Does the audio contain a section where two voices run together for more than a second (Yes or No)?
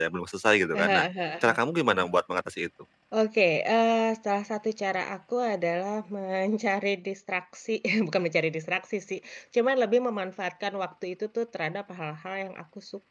No